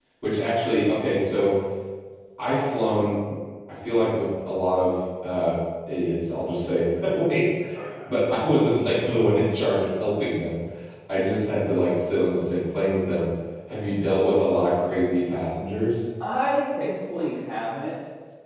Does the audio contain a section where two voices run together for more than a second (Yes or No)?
No